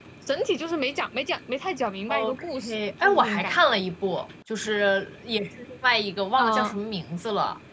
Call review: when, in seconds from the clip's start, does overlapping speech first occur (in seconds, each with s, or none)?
2.1 s